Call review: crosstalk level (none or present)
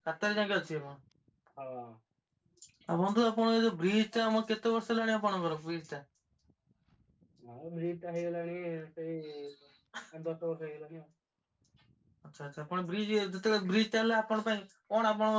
none